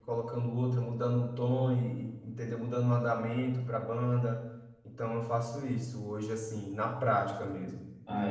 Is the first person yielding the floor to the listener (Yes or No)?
Yes